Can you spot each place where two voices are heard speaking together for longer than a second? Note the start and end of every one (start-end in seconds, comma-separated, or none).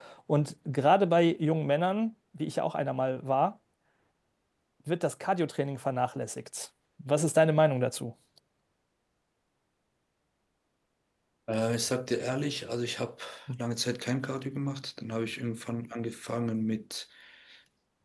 none